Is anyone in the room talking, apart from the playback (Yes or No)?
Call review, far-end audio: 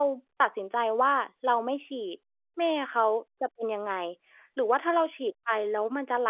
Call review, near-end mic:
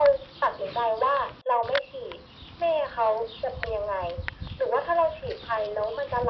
No